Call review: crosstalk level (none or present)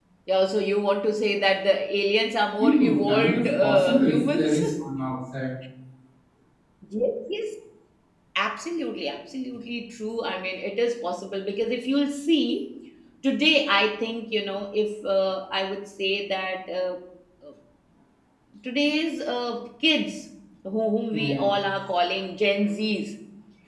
present